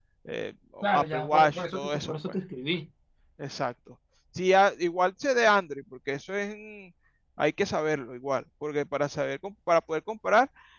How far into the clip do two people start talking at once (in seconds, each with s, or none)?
0.9 s